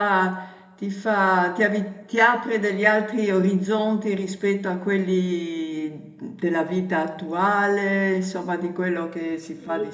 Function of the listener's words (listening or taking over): taking over